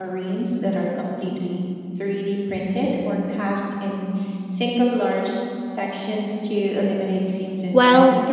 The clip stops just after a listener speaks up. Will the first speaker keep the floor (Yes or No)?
No